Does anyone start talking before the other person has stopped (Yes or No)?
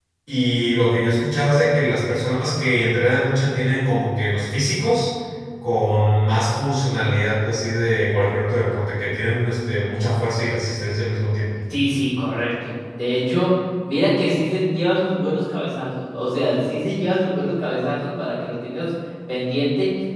No